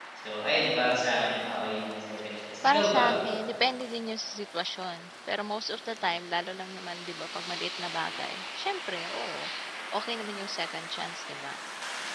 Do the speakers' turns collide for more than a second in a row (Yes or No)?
No